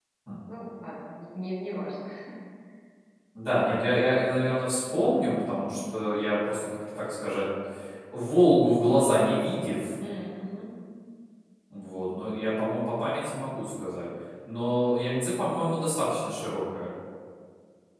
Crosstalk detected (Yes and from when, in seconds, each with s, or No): No